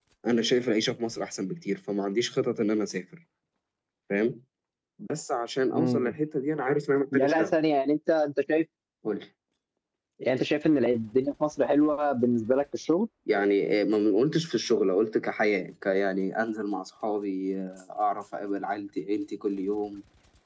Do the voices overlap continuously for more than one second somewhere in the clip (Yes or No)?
No